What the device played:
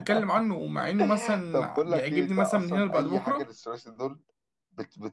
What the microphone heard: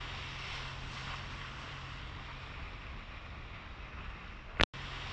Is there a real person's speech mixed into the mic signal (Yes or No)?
No